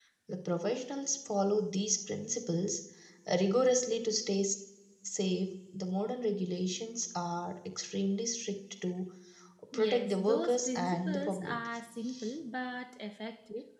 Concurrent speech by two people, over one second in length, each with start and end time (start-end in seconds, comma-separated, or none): 9.7-11.6